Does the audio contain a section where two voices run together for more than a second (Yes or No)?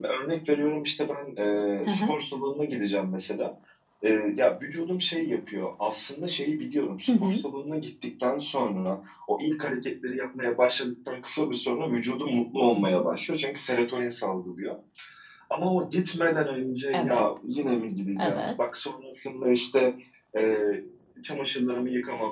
No